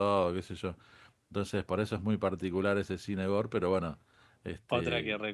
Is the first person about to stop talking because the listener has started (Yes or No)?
Yes